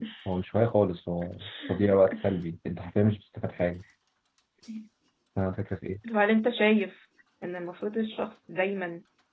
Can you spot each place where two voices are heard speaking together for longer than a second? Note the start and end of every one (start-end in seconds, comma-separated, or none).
none